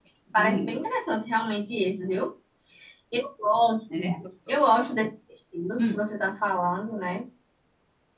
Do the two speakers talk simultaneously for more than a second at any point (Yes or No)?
No